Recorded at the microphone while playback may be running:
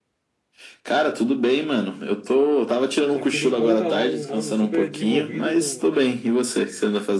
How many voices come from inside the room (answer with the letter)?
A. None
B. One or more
B